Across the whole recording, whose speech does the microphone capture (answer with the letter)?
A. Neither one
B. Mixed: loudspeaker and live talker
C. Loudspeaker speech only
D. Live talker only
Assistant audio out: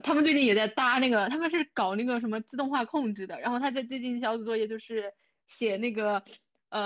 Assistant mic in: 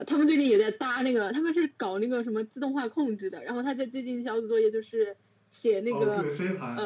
B